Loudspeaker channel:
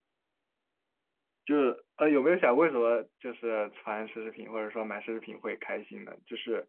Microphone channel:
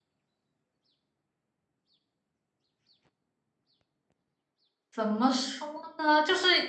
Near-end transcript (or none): 怎么说呢？就是